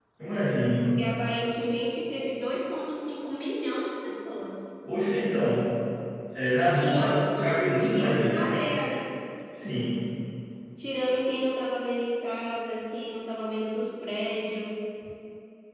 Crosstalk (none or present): present